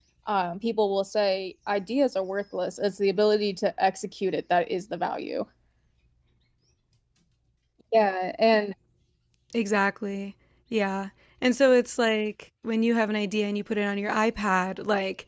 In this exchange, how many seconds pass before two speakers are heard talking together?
none

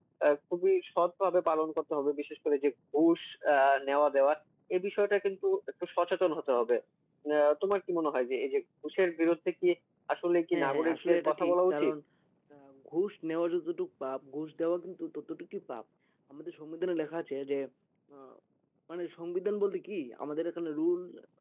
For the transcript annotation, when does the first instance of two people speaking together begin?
10.5 s

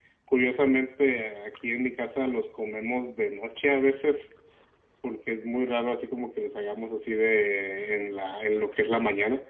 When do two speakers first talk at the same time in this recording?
none

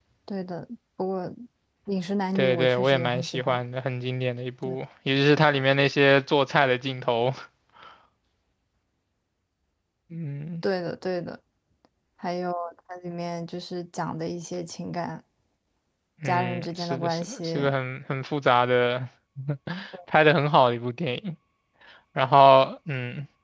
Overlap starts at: 2.4 s

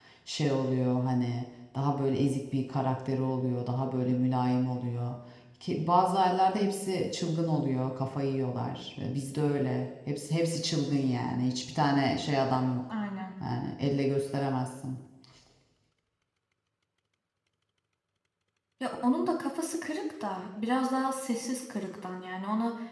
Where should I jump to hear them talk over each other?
none

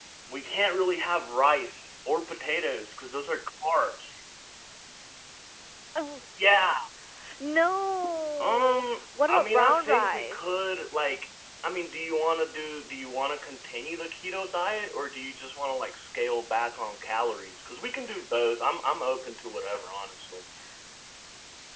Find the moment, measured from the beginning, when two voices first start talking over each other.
8.4 s

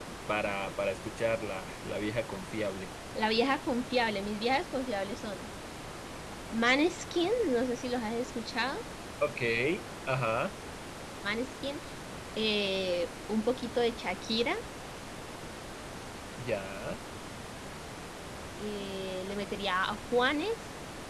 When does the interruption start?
none

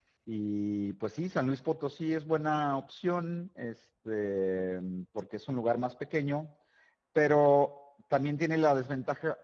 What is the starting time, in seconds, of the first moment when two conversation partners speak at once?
none

